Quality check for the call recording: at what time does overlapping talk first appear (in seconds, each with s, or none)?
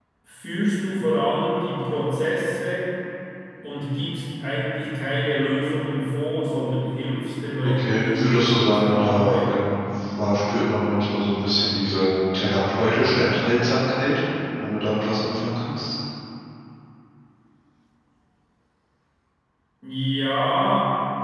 7.6 s